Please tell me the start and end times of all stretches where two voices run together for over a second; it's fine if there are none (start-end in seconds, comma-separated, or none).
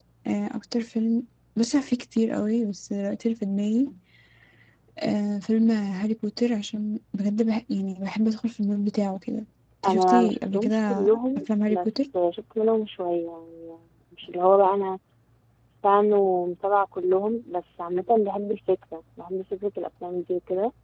9.8-11.9